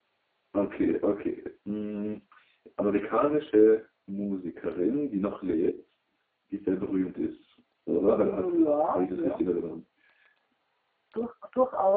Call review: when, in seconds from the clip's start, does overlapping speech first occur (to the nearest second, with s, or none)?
8 s